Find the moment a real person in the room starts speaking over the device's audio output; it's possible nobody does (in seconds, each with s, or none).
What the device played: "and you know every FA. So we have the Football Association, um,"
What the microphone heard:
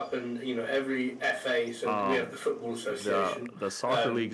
1.8 s